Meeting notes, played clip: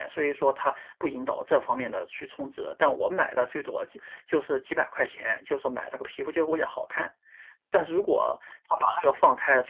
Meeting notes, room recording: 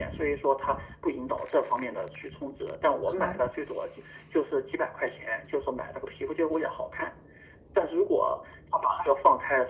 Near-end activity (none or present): present